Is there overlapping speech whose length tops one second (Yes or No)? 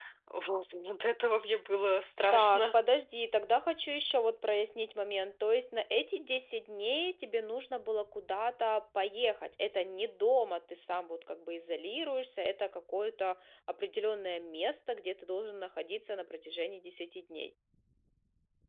No